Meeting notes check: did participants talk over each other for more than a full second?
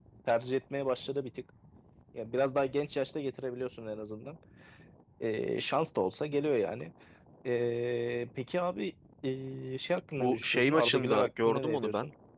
Yes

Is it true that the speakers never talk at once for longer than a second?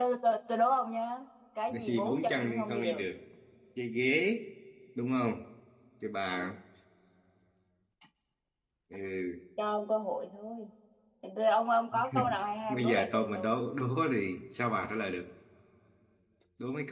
No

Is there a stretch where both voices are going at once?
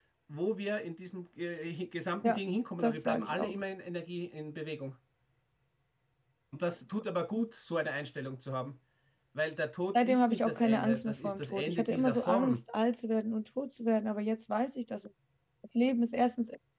Yes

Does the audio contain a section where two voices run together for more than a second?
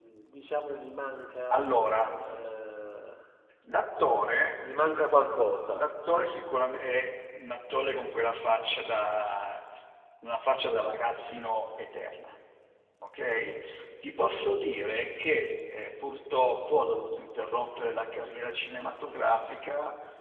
No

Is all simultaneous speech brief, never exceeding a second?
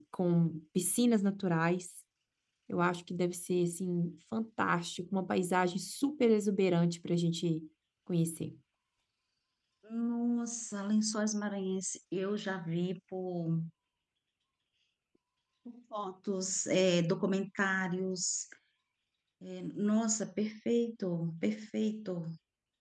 Yes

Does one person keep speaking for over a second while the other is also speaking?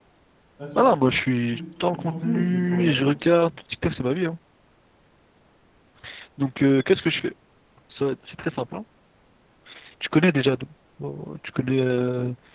Yes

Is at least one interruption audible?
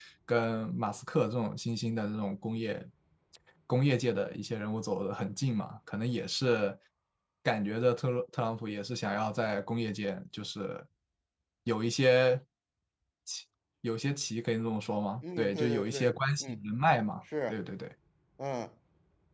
Yes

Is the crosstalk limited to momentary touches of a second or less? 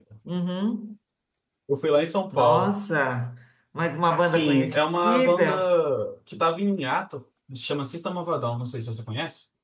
No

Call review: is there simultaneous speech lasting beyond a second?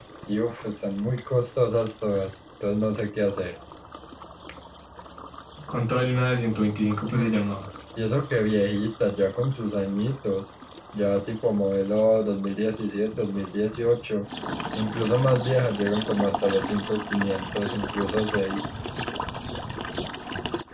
No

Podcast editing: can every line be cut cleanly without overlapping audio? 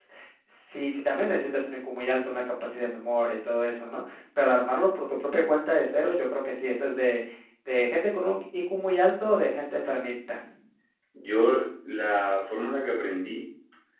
Yes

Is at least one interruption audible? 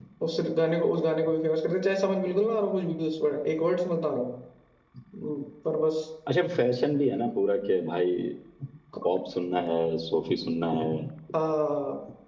No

